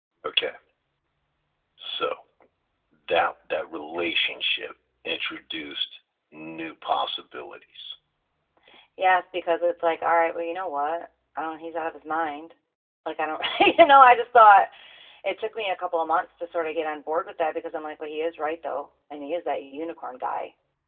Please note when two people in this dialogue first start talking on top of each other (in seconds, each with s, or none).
none